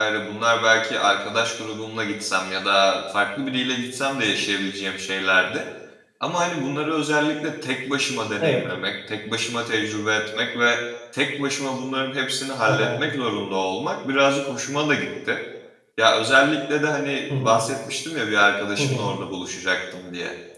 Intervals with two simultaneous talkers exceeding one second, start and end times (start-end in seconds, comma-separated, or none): none